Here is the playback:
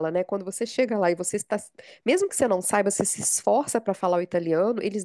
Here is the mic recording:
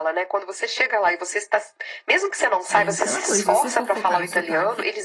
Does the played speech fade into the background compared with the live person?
No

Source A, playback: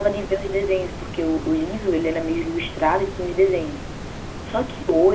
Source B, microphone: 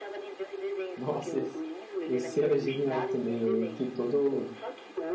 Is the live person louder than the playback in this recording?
Yes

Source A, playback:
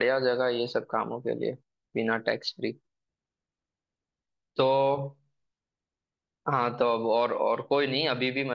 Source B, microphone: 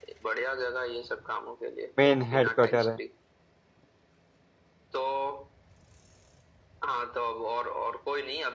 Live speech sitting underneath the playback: No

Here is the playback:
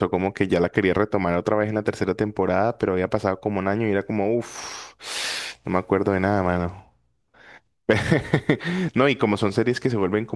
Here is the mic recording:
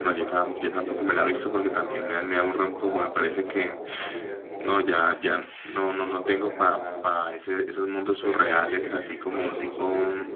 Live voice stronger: Yes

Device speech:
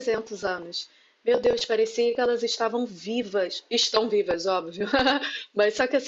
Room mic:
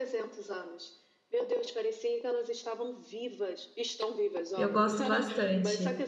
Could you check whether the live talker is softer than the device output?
No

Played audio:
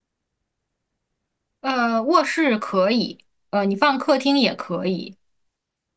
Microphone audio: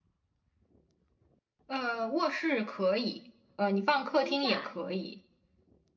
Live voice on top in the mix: No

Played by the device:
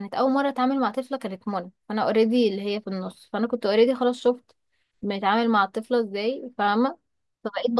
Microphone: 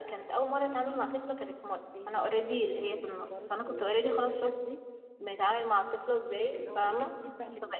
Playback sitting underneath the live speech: No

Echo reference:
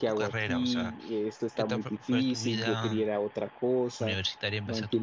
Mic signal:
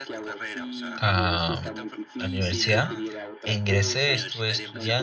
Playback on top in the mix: No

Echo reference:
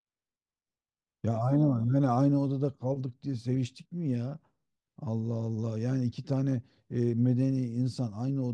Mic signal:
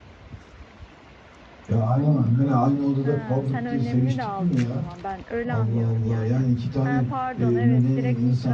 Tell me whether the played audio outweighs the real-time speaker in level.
Yes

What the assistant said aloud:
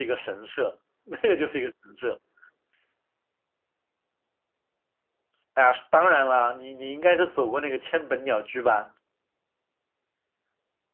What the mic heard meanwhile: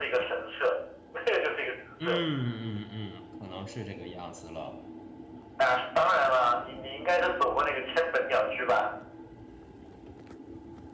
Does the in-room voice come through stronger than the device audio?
No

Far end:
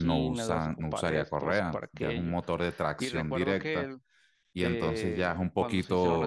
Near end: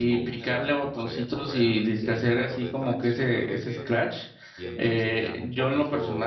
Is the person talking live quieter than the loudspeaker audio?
No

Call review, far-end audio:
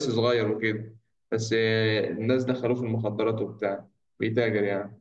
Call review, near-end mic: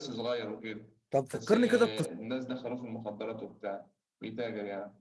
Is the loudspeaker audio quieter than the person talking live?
Yes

